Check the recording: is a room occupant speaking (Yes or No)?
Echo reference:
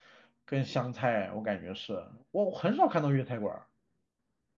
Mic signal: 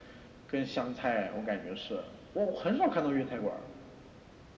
No